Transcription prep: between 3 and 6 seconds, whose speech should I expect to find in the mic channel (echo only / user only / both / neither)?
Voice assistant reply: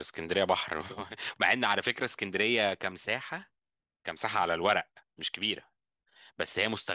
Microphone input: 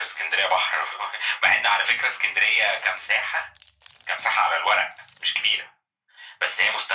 echo only